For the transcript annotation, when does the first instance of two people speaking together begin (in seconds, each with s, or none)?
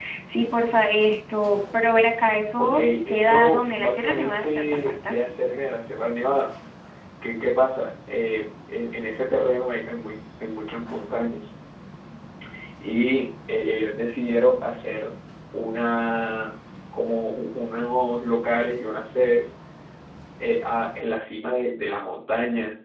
2.6 s